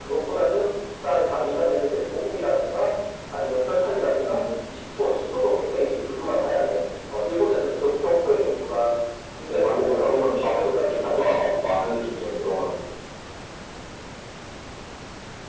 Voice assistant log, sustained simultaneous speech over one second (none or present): present